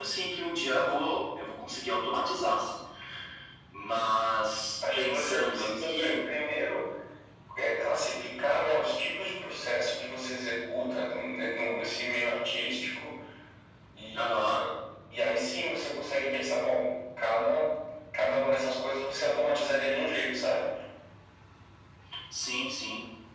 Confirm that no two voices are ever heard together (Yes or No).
No